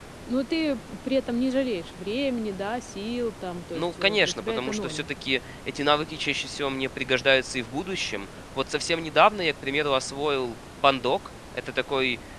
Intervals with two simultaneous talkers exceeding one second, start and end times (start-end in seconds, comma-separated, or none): 3.7-5.1